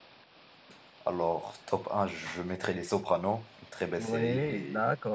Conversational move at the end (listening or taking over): taking over